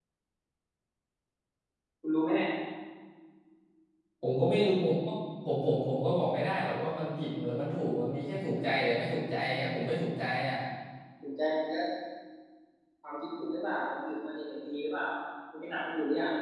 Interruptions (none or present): none